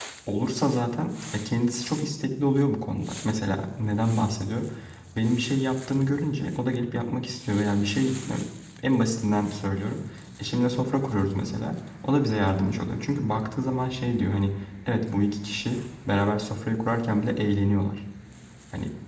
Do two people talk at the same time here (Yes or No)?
No